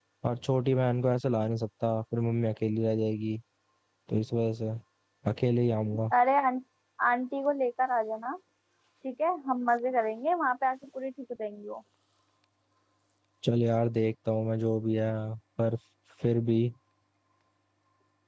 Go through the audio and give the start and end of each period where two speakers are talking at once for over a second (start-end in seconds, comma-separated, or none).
none